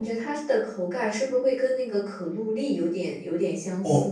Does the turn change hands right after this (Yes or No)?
Yes